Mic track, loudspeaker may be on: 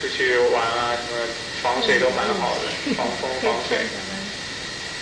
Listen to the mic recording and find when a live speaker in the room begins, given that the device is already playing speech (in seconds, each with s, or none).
1.6 s